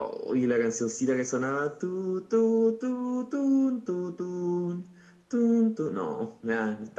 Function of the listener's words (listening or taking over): taking over